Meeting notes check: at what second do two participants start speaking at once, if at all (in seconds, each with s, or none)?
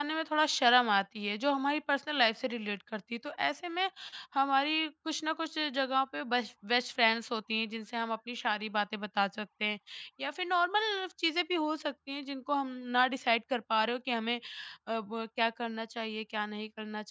none